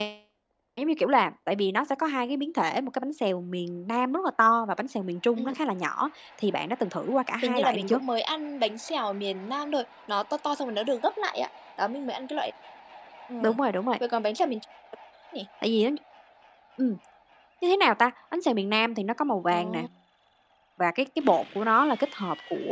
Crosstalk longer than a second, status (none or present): none